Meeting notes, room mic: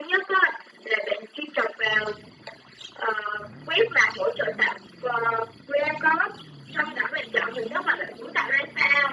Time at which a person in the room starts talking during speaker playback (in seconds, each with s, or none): none